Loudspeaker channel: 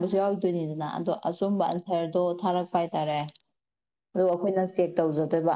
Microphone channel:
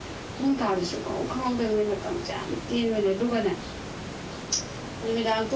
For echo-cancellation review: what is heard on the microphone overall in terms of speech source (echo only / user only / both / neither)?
user only